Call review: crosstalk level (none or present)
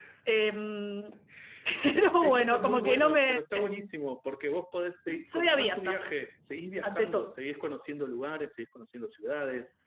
present